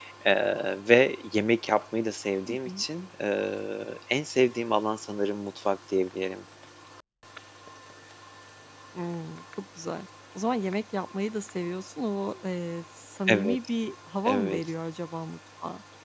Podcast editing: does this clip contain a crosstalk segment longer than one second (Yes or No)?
No